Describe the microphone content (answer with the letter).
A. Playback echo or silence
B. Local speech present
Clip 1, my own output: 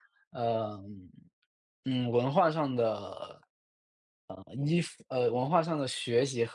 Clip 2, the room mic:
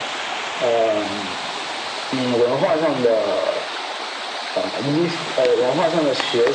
A